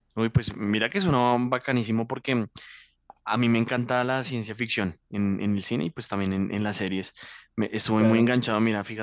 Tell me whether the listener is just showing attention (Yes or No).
Yes